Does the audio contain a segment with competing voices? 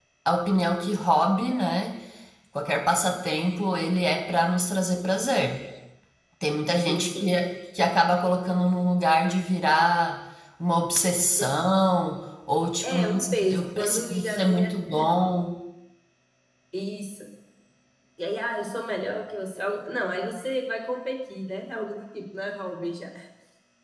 Yes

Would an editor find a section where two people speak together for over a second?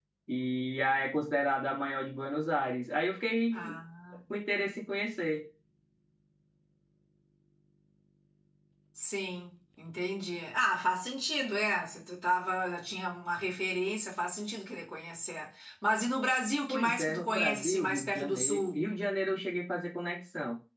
Yes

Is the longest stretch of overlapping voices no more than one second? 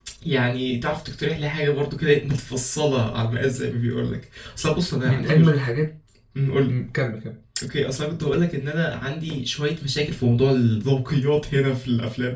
Yes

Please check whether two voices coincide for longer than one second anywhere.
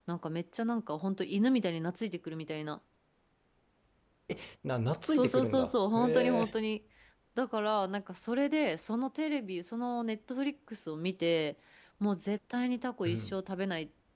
Yes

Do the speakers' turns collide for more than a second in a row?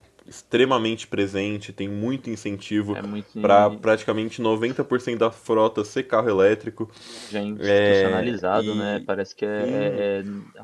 Yes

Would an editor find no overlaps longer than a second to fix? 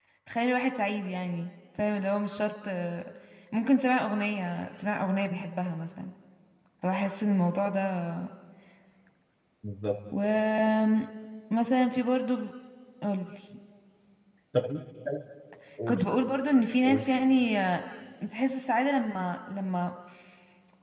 Yes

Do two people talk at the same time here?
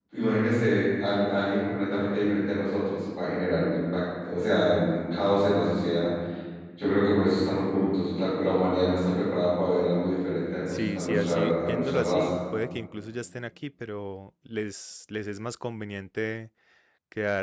Yes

